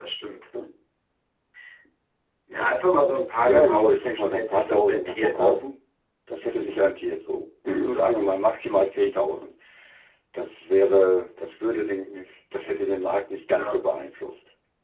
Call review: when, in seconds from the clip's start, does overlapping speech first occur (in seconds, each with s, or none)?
3.4 s